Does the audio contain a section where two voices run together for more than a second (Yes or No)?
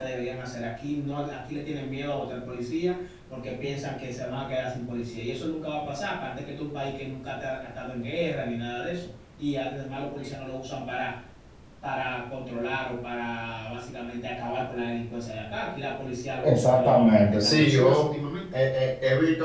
Yes